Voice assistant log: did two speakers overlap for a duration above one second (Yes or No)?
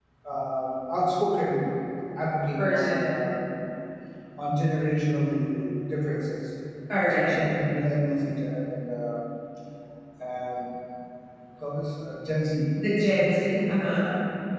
No